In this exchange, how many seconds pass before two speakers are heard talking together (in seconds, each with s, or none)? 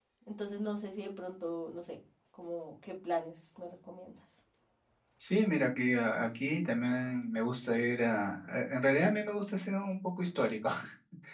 none